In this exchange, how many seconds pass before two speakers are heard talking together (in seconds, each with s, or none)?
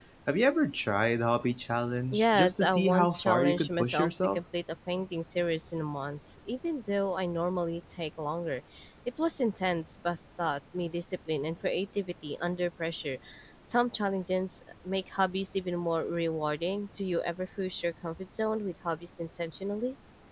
2.1 s